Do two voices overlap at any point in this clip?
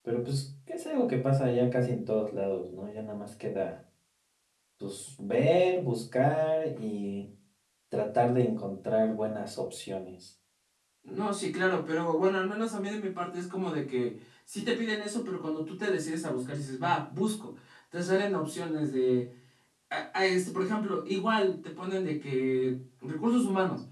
No

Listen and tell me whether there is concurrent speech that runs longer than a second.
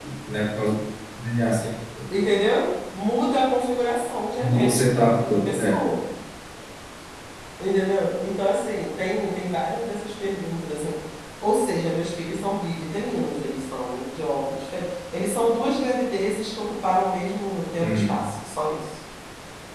Yes, from 4.4 s

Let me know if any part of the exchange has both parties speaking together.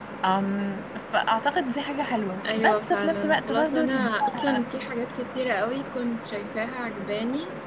Yes, from 2.4 s

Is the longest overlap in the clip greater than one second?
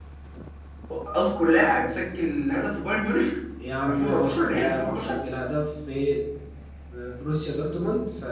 Yes, from 3.9 s

